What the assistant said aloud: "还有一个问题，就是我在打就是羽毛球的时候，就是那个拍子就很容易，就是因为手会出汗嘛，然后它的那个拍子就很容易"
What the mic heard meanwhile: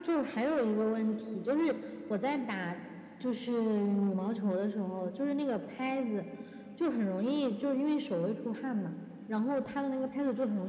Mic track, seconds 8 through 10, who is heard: echo only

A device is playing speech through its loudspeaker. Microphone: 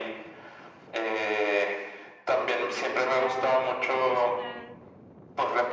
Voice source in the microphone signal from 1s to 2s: echo only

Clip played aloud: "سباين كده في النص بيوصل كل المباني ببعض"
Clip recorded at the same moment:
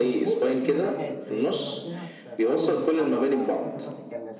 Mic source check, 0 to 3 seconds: both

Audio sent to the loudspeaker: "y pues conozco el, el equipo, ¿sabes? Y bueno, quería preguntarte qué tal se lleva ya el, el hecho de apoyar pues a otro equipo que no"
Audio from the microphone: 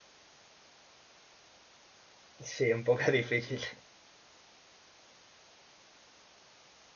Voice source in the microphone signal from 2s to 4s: user only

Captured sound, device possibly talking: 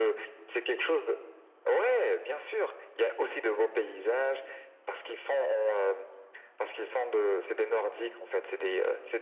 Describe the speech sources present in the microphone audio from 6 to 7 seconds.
echo only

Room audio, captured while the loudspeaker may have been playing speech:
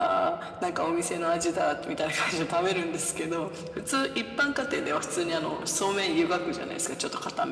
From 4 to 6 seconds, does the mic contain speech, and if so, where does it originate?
echo only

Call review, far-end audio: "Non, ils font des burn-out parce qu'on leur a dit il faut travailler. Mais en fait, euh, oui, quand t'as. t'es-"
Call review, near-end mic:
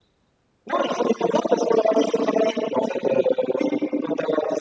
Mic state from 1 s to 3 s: echo only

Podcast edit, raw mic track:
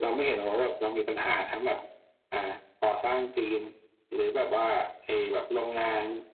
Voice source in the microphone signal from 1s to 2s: echo only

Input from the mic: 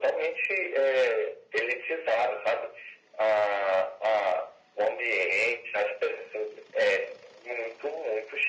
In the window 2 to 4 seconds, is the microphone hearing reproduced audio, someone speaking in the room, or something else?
echo only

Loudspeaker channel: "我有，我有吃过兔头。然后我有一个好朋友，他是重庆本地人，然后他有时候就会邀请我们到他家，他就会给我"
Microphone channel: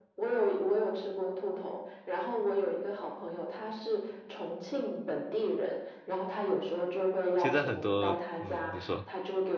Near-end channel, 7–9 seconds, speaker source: both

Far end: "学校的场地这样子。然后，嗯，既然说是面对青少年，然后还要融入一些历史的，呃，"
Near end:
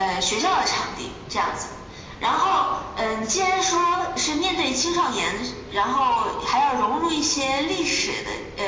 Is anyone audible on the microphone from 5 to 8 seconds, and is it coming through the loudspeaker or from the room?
echo only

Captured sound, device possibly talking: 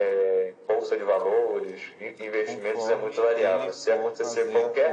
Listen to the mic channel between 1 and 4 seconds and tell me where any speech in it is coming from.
both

